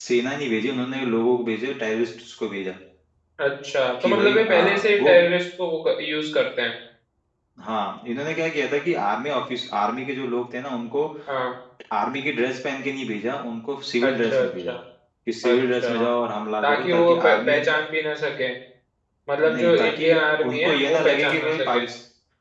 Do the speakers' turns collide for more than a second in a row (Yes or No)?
Yes